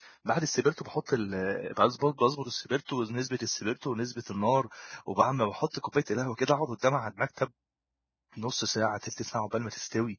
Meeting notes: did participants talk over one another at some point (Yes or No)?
No